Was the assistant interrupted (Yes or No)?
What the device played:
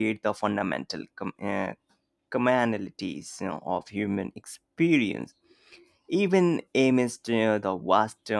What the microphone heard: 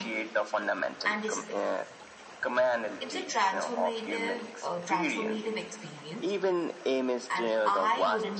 Yes